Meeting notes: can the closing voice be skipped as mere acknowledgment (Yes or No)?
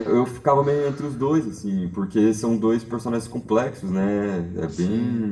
Yes